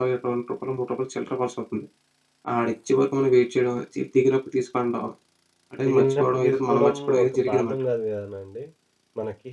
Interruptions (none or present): present